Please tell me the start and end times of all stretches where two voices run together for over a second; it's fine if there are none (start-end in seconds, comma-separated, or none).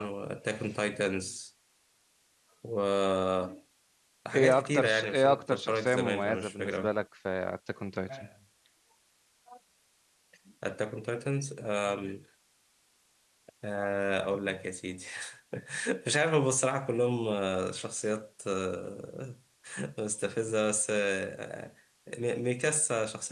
4.6-6.9